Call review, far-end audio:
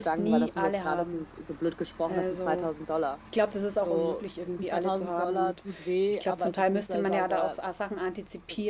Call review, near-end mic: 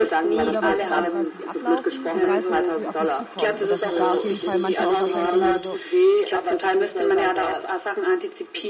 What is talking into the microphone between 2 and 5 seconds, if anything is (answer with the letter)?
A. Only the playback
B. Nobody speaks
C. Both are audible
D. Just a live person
C